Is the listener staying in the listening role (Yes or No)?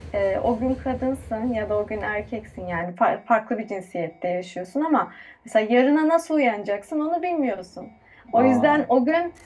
Yes